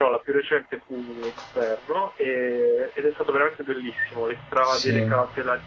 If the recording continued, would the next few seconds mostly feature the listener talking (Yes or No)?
No